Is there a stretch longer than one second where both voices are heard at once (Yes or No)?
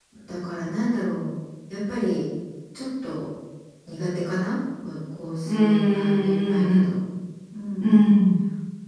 Yes